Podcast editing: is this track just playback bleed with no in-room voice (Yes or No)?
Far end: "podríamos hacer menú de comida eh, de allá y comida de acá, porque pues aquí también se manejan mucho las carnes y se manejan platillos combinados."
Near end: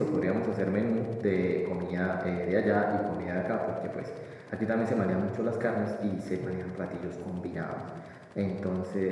Yes